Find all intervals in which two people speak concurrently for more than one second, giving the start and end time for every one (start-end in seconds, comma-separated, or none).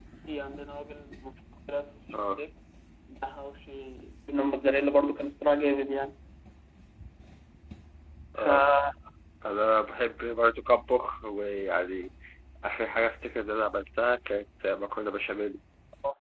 none